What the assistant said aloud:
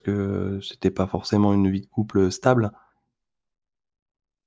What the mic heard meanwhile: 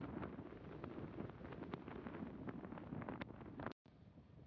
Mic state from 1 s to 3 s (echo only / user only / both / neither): neither